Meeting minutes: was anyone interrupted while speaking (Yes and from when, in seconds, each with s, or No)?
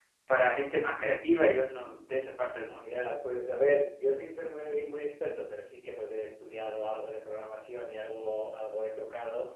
No